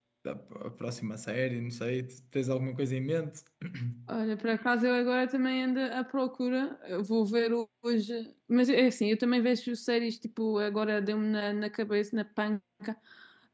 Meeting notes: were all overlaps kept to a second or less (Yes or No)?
Yes